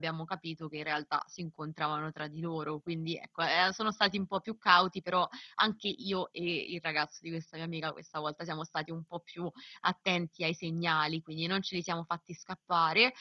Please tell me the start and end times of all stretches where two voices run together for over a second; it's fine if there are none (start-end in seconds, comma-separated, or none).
none